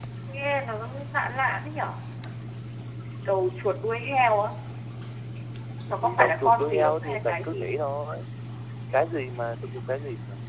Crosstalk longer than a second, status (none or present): present